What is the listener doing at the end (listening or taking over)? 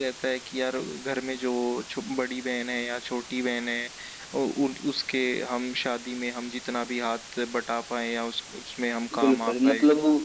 taking over